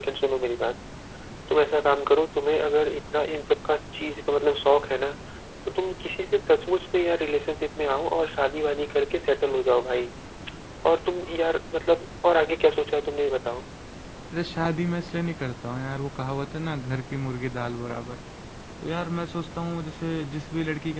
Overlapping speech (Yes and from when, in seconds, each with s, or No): No